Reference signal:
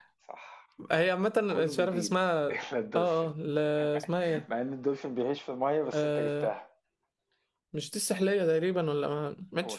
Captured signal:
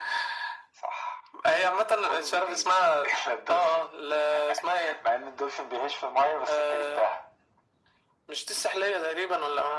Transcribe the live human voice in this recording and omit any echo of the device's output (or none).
none